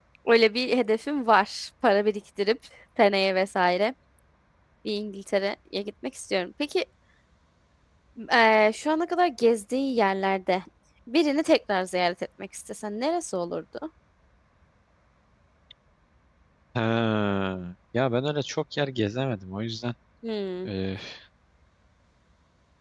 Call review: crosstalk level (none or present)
none